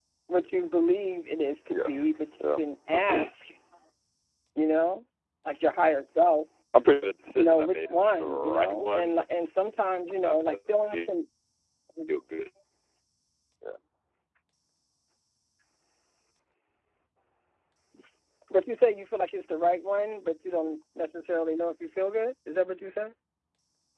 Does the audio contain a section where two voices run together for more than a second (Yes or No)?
Yes